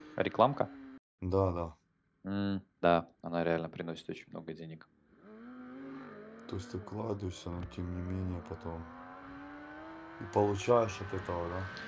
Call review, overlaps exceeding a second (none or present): none